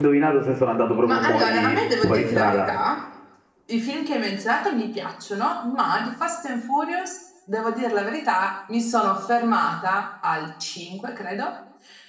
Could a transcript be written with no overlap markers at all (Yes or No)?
No